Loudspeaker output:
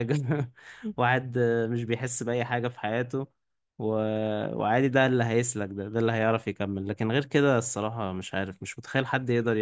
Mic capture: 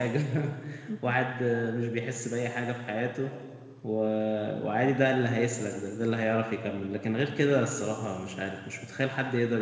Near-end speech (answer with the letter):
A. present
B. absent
B